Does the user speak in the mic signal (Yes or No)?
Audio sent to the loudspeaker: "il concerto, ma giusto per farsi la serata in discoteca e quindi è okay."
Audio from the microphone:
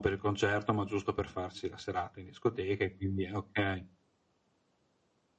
No